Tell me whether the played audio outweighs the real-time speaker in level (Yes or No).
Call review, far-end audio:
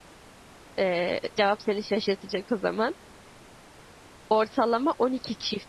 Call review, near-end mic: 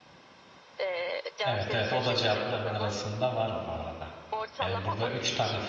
No